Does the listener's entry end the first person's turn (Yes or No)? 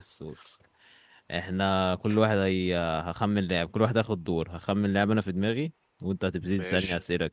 No